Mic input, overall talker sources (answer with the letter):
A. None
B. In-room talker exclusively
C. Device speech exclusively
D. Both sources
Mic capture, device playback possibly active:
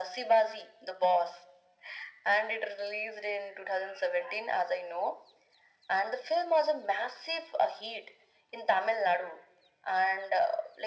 C